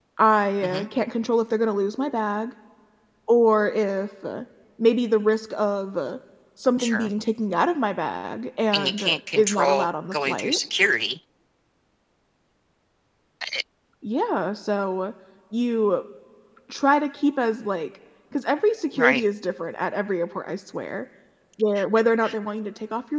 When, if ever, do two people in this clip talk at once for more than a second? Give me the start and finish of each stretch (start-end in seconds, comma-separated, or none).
8.7-10.6